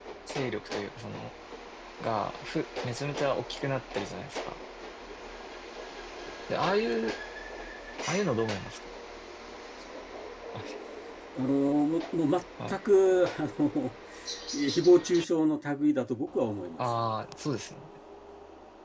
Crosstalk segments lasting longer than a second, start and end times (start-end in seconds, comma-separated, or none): none